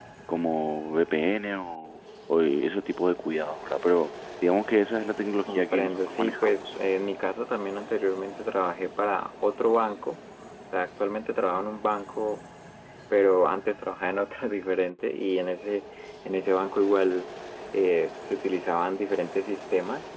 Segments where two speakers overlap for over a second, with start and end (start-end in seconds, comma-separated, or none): 5.5-6.7